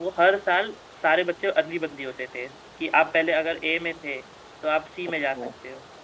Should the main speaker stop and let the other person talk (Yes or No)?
No